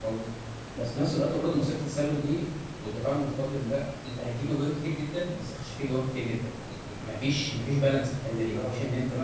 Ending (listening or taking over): listening